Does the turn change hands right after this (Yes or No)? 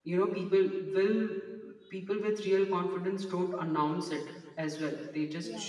No